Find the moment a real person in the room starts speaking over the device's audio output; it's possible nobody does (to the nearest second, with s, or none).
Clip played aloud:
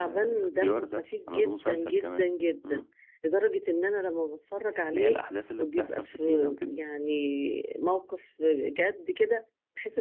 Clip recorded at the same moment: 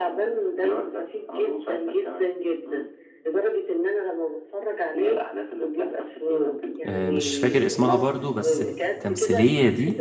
7 s